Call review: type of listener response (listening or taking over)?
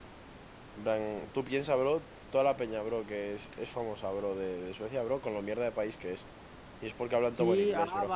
taking over